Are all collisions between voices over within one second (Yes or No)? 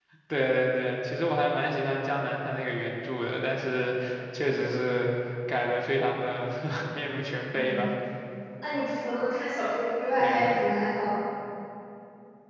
Yes